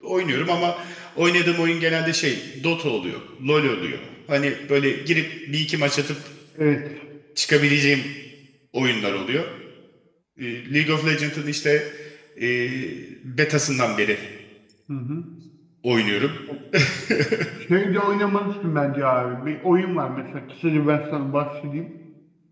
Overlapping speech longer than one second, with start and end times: none

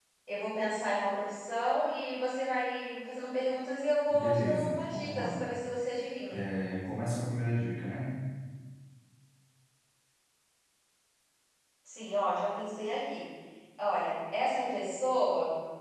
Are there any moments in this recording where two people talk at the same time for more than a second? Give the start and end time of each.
4.1-5.4

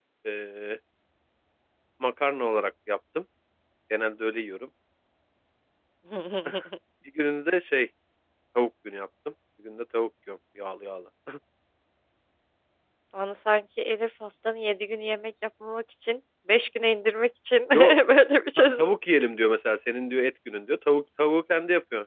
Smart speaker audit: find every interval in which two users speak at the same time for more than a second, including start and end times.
none

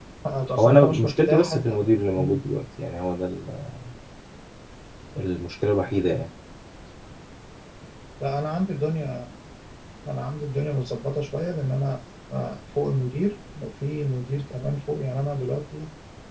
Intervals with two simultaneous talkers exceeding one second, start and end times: 0.6-1.8

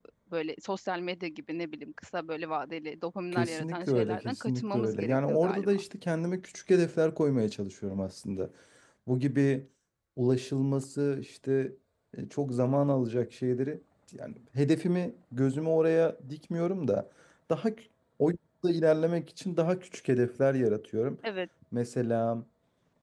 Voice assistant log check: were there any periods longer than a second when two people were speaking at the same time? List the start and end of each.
3.3-5.8

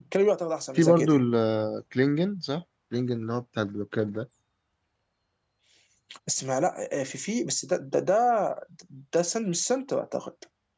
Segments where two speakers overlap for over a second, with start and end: none

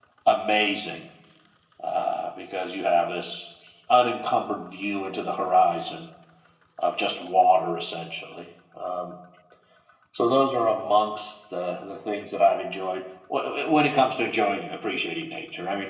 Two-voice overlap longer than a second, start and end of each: none

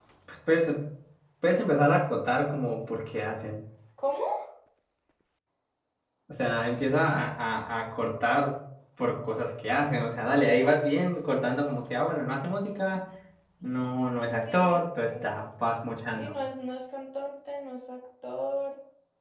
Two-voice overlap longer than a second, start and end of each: none

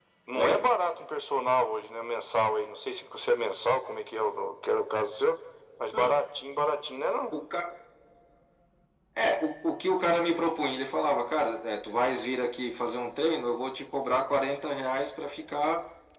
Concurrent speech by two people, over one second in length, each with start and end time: none

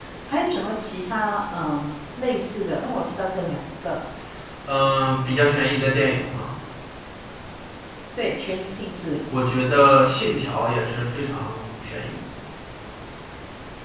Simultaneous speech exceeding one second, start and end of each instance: none

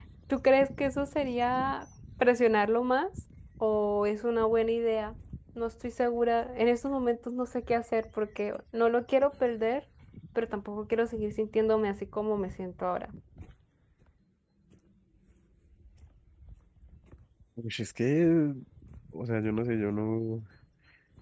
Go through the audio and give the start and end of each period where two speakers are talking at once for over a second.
none

